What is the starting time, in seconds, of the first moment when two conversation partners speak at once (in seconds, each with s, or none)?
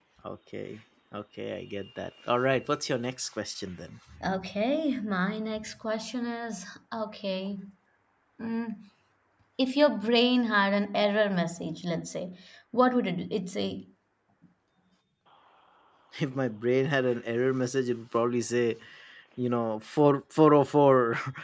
none